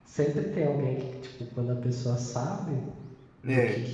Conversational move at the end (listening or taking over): listening